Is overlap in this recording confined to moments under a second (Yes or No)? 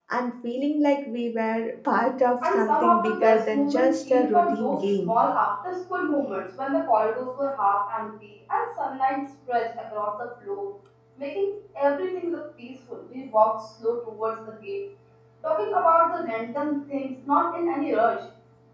No